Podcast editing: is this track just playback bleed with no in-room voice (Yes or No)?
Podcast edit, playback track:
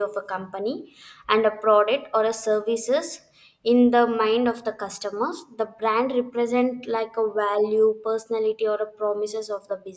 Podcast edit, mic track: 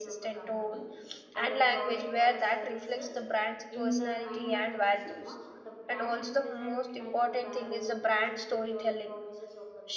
No